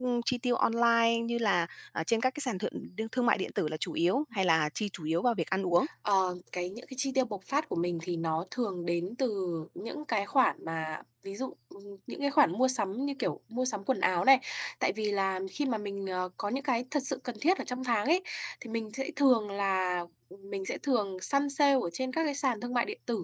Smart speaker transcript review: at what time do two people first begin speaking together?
none

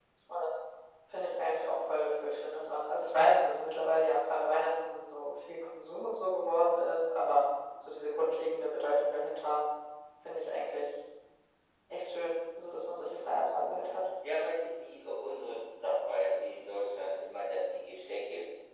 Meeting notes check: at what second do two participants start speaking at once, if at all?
none

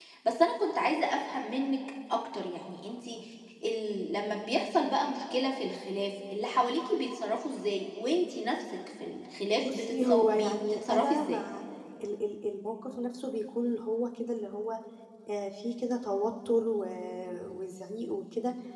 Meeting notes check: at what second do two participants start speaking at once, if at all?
9.6 s

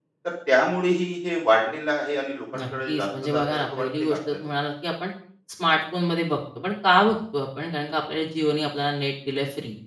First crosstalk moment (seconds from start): 2.5 s

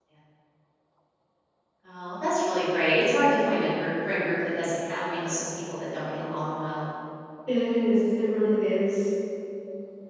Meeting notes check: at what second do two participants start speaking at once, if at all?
none

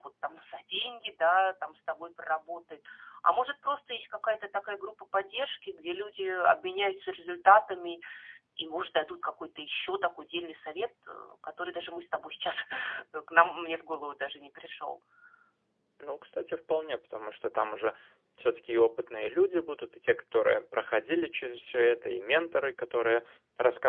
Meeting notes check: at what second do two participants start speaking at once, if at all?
none

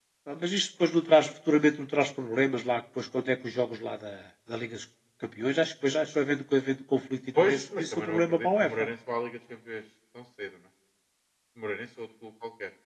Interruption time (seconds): 7.4 s

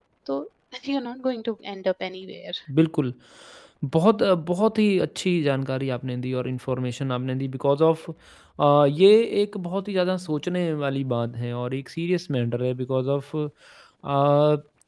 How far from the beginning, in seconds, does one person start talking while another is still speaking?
none

